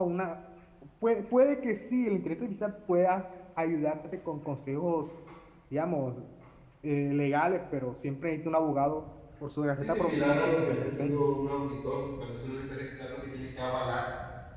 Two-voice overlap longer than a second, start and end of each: 9.8-11.2

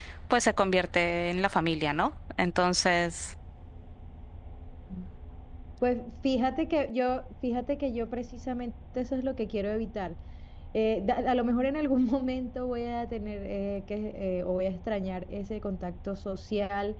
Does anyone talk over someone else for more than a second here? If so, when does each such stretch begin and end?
none

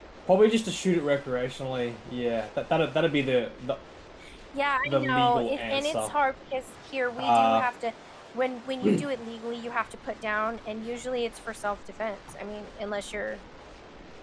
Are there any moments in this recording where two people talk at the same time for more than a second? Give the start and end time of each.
4.8-6.1

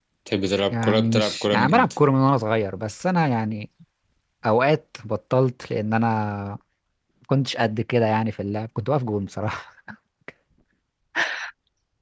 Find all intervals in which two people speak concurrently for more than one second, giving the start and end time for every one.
0.7-2.0

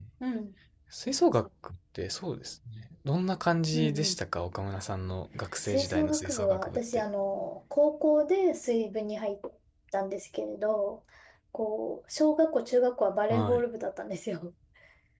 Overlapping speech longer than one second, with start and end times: 5.7-7.0

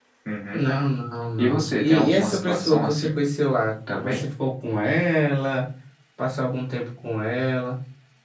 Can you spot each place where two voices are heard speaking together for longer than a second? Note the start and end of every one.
1.4-3.2

